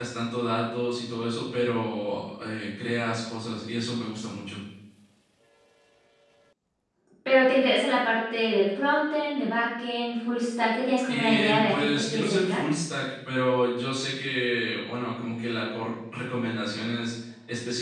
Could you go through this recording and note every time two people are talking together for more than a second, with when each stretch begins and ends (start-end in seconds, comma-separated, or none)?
11.1-12.7